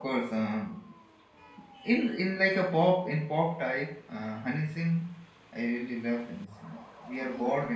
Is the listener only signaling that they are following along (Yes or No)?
Yes